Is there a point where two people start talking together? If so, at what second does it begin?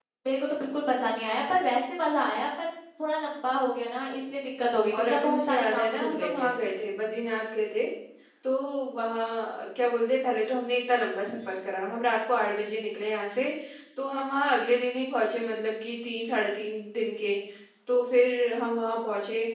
4.9 s

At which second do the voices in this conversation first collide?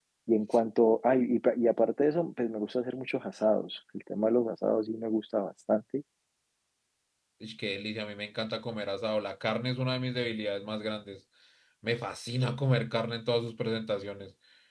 none

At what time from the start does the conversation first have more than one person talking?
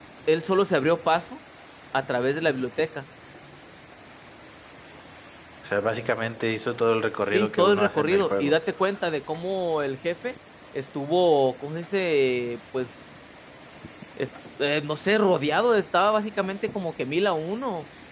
7.3 s

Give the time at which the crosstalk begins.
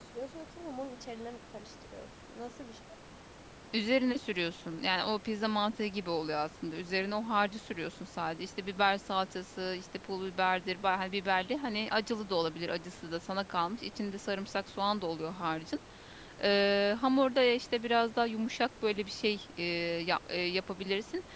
none

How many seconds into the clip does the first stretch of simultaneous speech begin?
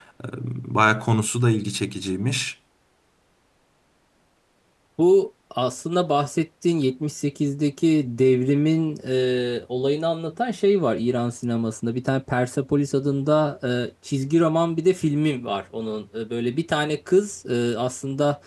none

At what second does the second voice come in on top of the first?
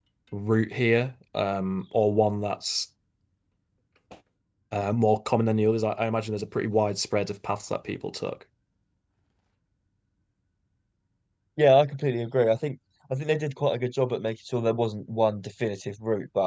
none

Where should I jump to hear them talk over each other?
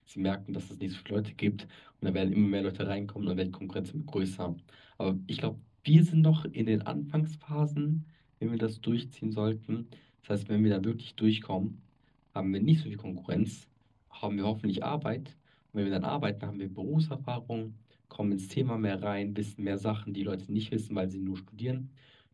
none

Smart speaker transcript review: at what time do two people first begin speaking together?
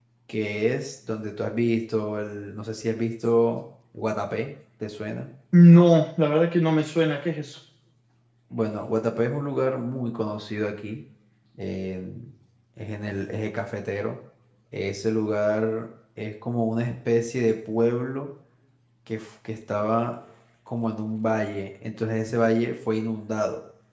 none

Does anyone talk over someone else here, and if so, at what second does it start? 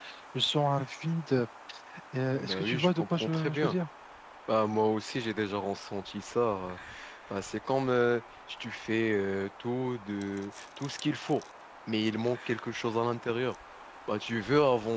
2.3 s

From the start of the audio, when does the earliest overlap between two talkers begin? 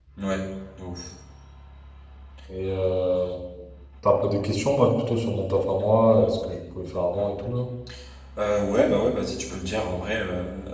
none

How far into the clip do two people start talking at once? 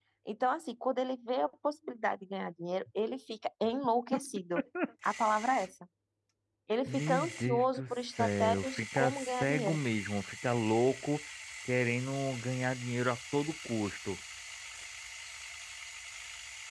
6.9 s

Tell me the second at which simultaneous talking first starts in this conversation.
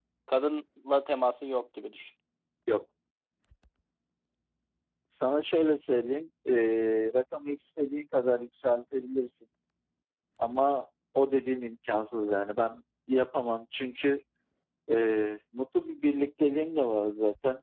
none

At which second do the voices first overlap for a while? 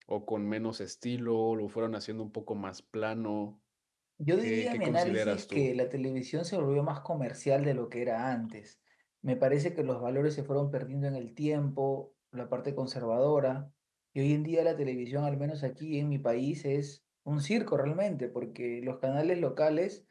4.4 s

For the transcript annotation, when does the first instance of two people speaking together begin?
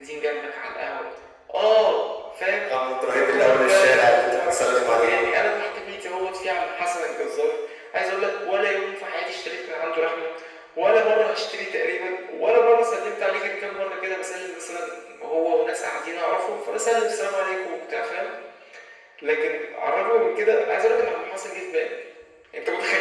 3.1 s

